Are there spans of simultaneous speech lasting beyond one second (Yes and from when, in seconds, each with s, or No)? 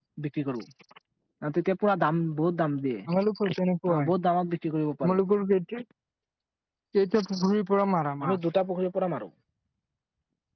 No